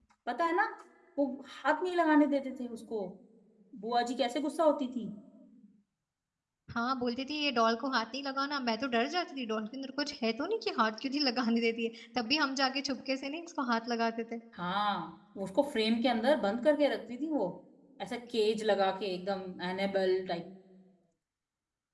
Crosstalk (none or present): none